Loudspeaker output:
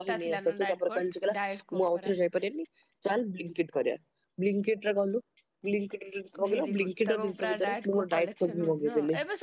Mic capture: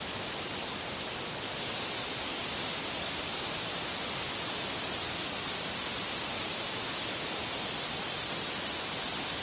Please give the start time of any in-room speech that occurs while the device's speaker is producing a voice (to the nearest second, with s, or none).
none